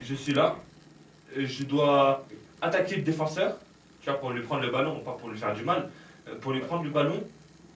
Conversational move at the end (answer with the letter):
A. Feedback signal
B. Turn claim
A